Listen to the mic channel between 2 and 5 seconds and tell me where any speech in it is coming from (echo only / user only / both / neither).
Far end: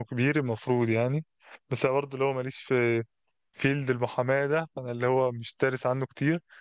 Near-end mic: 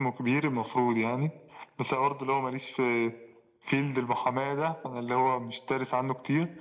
echo only